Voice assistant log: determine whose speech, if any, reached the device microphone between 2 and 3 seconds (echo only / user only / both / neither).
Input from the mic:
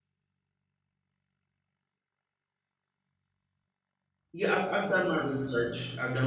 neither